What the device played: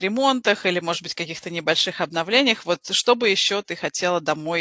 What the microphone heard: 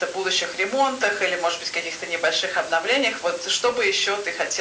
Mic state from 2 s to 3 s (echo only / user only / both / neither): echo only